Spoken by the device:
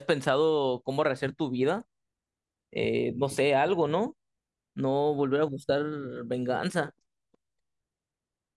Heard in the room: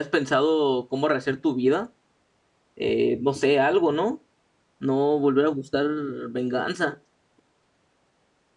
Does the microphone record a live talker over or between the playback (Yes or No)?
No